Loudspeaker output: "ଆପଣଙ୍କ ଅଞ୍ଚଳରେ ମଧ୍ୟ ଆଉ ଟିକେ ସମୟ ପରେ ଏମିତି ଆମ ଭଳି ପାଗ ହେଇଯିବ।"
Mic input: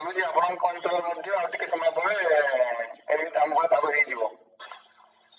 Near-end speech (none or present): none